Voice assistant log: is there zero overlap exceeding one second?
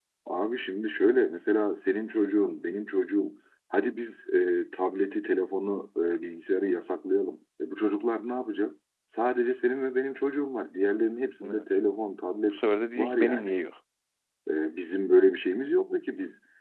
Yes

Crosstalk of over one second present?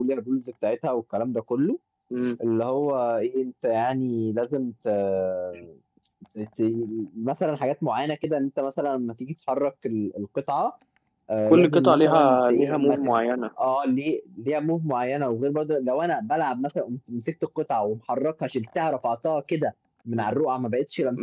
Yes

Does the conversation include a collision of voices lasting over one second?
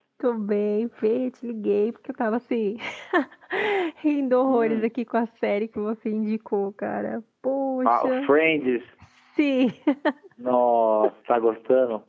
No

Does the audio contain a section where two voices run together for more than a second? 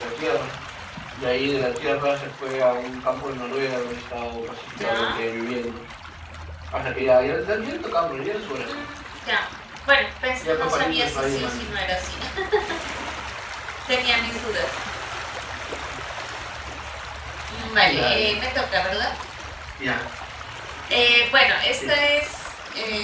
Yes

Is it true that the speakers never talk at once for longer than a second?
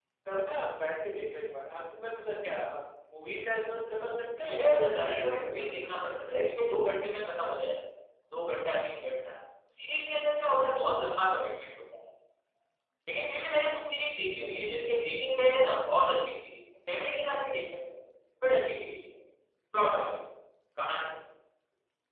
No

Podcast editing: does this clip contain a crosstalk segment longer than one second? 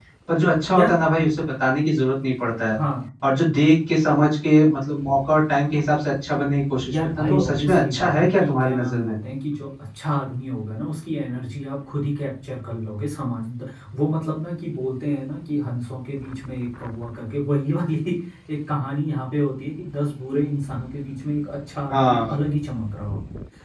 Yes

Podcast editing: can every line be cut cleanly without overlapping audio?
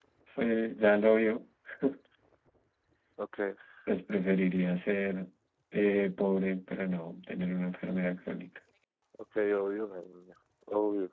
Yes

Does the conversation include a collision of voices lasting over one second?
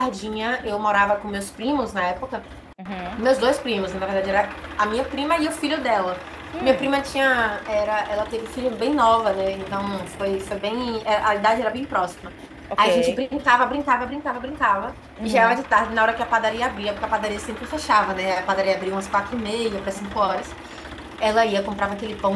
No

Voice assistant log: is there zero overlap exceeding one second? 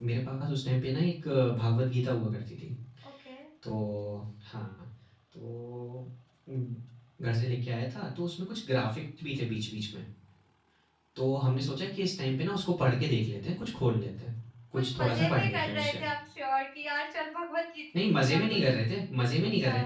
No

